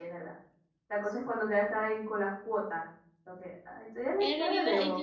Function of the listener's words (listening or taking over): taking over